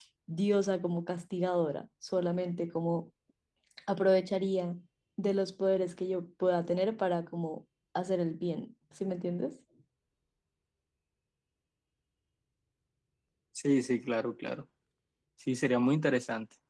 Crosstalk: none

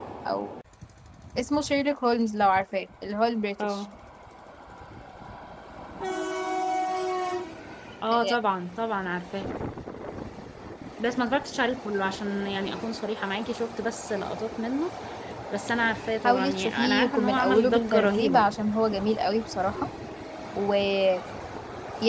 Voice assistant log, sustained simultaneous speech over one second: present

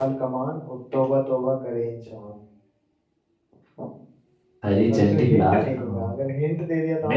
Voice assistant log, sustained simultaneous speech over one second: present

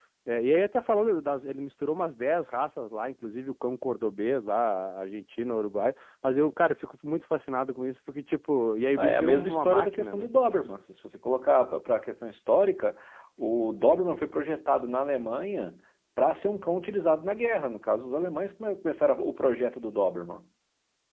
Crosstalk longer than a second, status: present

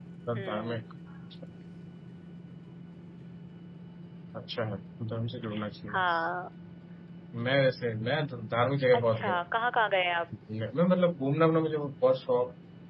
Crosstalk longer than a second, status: none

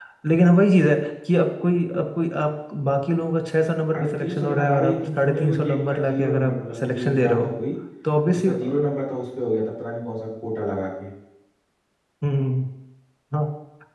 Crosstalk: present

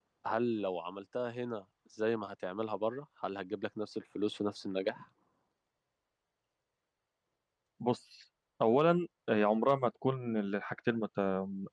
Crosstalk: none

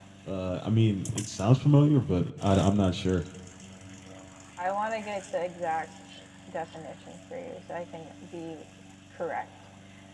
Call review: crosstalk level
none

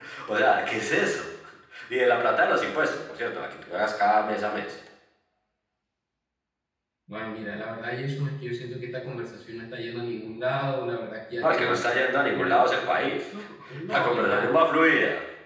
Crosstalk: present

